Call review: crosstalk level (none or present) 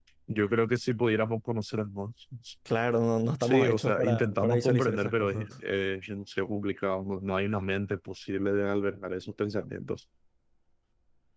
present